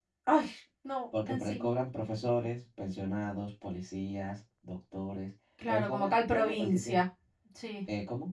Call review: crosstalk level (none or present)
present